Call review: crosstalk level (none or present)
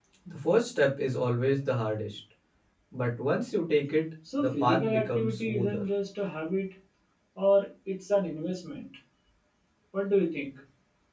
present